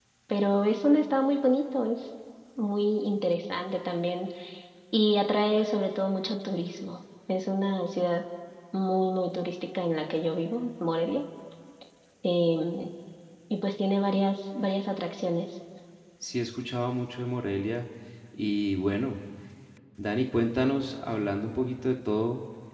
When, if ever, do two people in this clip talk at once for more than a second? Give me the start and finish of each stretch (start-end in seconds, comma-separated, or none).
none